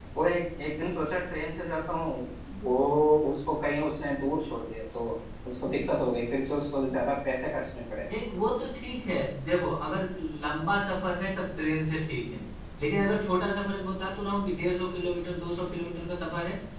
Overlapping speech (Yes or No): No